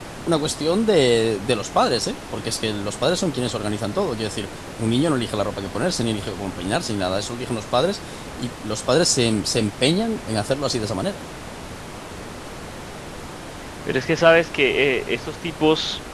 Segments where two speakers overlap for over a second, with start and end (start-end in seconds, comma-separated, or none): none